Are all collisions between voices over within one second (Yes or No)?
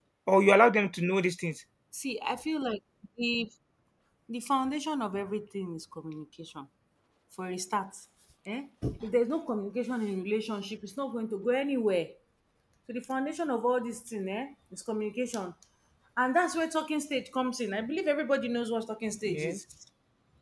Yes